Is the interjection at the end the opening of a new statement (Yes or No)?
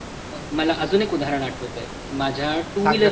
No